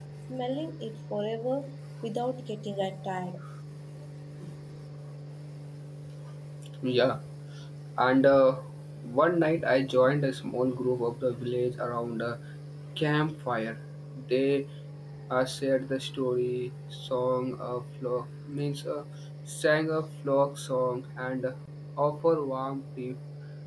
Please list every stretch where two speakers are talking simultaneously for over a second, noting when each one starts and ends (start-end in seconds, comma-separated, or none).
none